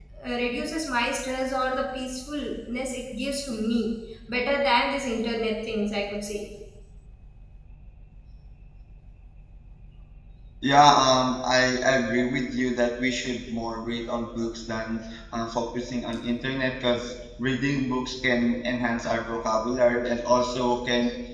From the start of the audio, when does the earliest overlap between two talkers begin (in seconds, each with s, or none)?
none